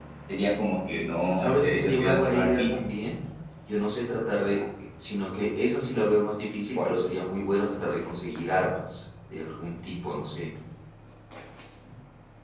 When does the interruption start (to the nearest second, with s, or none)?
1 s